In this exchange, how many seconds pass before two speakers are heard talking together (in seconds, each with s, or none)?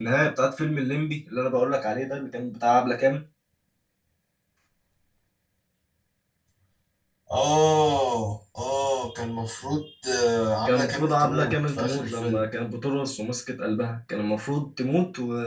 10.7 s